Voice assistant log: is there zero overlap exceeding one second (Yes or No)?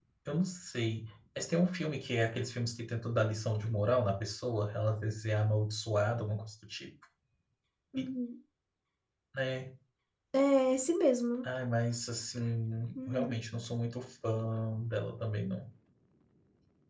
Yes